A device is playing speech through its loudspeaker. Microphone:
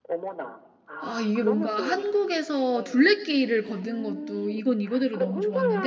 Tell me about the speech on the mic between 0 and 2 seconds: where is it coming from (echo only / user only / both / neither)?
both